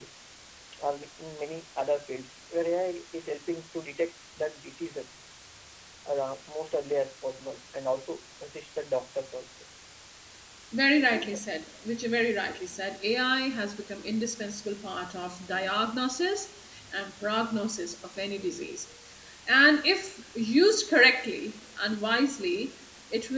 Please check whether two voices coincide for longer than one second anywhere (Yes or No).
No